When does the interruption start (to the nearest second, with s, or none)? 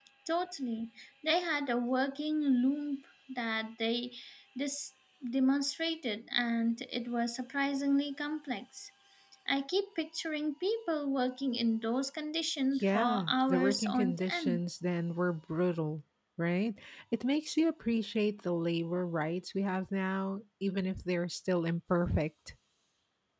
13 s